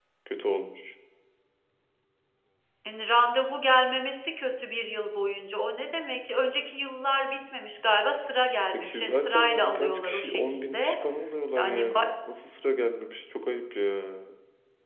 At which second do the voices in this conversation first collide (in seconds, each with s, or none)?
8.7 s